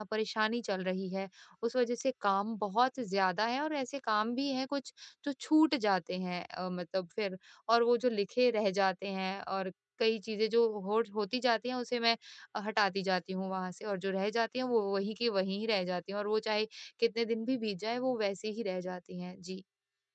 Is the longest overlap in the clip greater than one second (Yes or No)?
No